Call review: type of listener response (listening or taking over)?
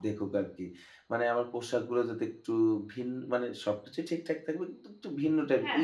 listening